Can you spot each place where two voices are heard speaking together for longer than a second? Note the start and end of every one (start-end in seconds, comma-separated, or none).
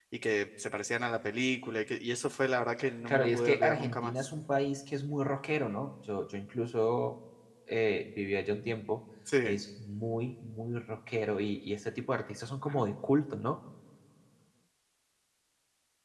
3.1-4.3